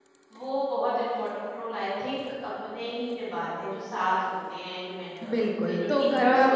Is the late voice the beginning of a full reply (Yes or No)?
Yes